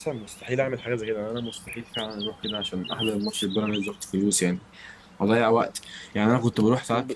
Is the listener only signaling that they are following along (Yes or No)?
Yes